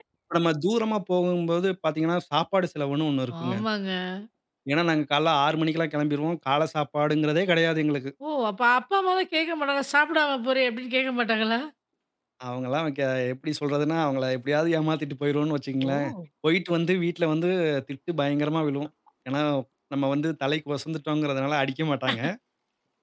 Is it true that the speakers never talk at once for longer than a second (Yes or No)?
Yes